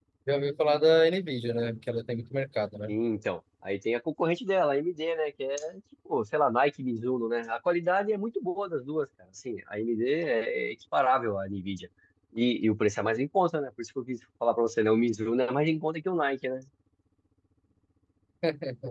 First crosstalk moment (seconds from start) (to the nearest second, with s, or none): none